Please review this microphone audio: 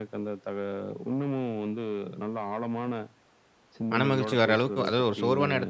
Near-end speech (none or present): present